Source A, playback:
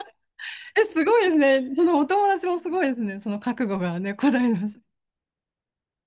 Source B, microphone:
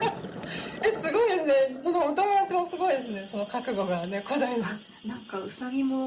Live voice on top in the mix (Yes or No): No